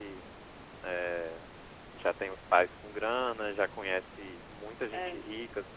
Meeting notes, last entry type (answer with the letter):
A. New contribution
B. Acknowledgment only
B